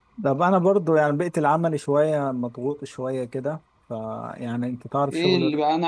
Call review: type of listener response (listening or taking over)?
taking over